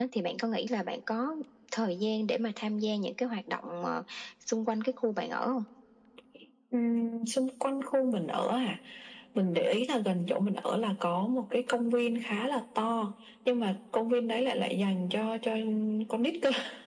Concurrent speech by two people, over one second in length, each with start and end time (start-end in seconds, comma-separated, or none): none